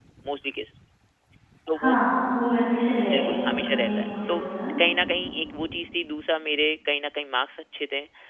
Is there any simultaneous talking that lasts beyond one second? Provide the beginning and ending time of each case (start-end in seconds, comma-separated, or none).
3.1-4.4